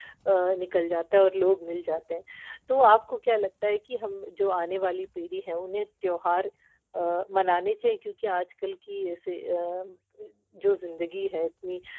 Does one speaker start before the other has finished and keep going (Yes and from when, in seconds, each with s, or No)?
No